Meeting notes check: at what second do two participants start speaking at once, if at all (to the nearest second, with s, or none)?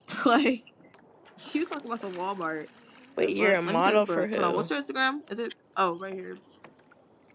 3 s